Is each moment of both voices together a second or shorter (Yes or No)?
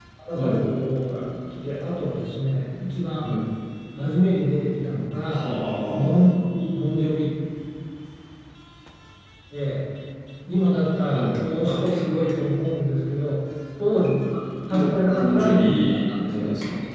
No